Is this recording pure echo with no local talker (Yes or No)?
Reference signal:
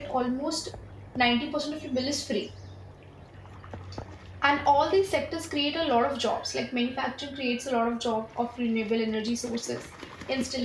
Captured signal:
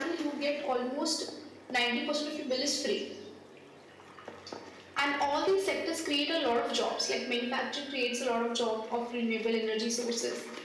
Yes